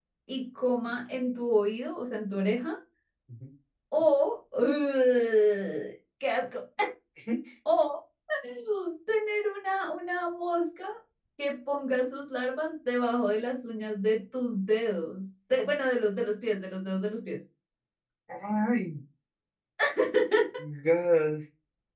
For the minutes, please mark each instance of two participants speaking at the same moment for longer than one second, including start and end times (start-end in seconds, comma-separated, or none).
none